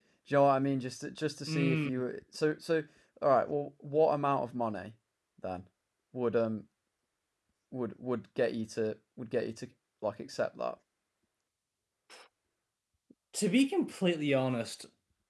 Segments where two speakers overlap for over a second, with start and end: none

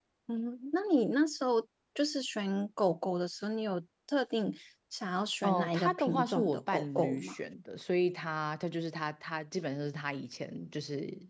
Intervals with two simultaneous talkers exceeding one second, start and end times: 5.4-7.3

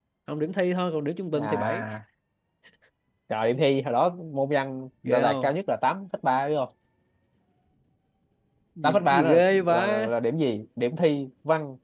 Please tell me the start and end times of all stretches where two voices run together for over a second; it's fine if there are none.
8.8-10.1

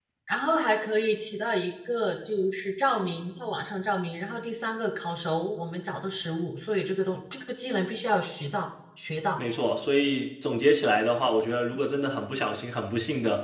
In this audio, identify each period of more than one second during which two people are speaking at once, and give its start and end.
none

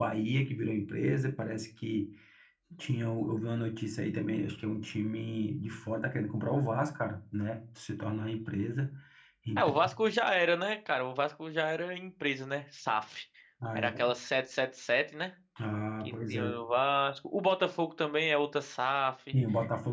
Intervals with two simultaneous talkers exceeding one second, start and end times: none

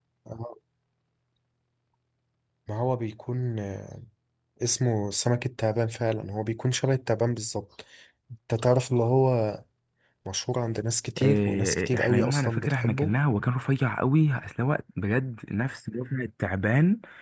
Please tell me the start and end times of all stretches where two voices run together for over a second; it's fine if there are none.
11.2-13.1

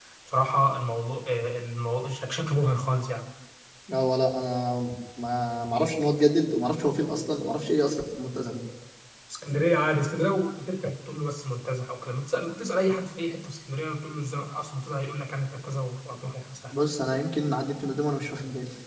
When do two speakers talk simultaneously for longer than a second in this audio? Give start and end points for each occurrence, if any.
none

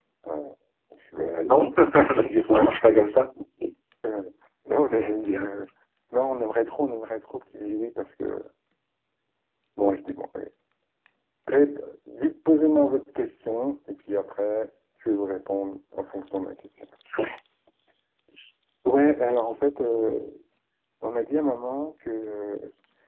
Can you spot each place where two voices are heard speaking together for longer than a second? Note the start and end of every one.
1.5-2.8

